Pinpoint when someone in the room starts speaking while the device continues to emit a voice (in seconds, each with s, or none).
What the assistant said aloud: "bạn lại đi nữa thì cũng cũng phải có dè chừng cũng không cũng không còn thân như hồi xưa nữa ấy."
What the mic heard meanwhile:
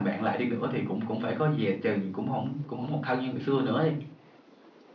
none